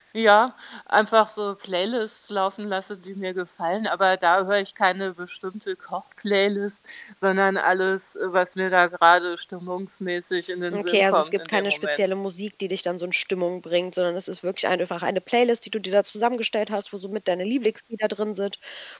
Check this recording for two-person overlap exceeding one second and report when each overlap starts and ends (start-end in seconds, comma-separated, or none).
10.7-12.0